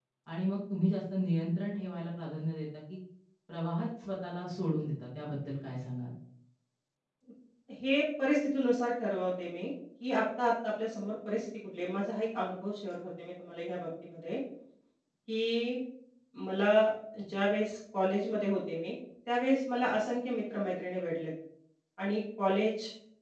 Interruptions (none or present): none